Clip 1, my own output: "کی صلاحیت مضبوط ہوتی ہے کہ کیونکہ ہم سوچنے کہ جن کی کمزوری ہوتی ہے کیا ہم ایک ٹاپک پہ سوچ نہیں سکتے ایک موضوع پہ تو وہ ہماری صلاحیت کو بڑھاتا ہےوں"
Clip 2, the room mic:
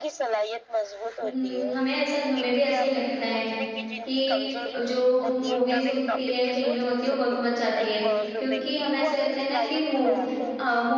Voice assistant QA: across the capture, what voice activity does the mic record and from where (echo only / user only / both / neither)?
both